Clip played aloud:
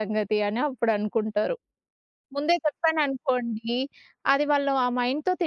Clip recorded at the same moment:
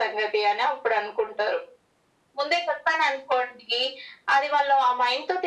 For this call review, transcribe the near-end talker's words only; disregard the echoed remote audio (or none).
none